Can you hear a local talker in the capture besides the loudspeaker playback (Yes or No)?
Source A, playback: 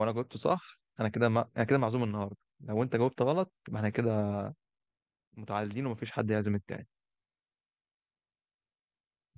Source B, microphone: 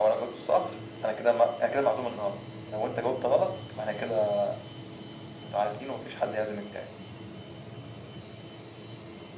No